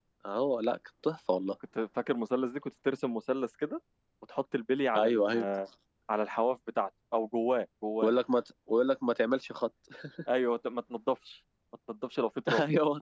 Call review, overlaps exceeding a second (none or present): none